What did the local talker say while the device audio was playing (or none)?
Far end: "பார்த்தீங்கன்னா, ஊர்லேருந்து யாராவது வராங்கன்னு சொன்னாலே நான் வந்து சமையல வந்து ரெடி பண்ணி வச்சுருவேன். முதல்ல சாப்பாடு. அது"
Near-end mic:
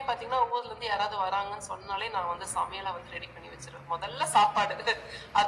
none